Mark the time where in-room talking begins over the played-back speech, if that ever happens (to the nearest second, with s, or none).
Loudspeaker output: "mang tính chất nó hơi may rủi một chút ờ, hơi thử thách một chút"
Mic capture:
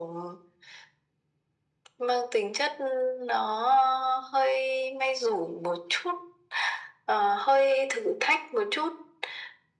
none